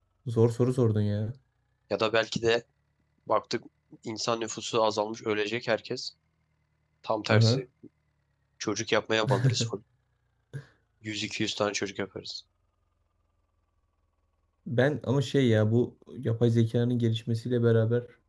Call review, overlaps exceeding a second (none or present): none